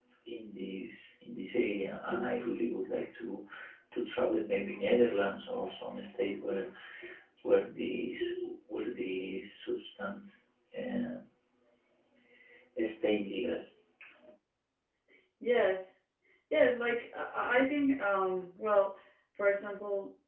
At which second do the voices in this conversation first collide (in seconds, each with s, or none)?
none